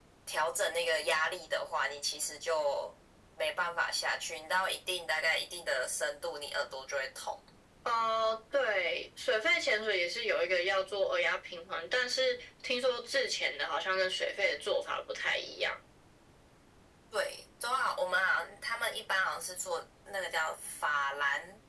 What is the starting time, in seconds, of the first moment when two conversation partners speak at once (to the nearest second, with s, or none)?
none